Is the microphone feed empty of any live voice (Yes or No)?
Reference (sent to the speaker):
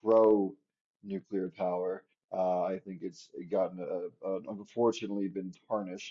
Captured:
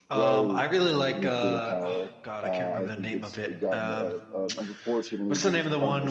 No